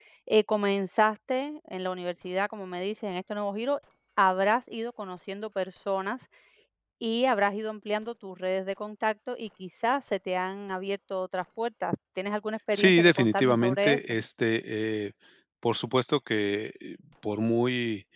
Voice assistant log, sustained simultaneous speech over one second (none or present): present